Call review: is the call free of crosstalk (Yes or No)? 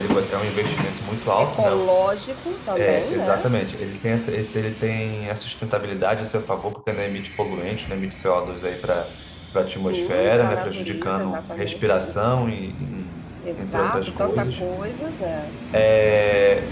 No